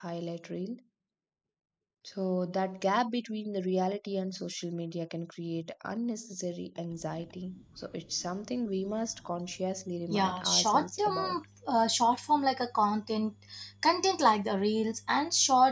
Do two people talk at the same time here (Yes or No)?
Yes